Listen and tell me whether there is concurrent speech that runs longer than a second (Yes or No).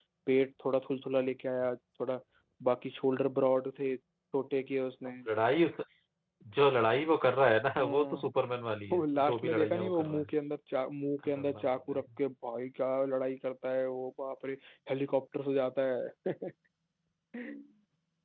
Yes